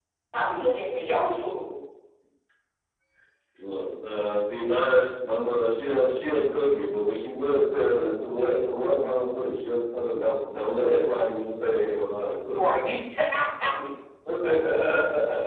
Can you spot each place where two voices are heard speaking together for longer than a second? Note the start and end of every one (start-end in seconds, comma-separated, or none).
none